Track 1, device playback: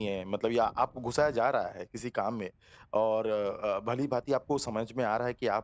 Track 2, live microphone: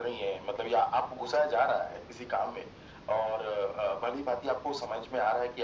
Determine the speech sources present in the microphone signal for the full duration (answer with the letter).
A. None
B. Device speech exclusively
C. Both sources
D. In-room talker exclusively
B